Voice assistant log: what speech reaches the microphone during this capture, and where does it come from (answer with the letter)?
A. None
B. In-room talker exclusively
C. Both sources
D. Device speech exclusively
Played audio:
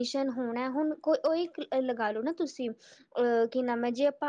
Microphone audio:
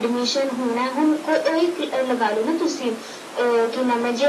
D